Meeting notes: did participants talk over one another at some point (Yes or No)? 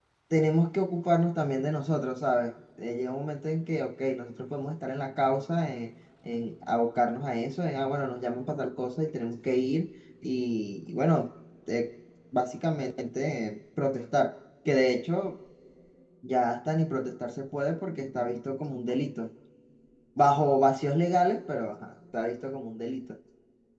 No